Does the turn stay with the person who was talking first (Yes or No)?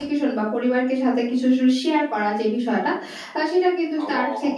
Yes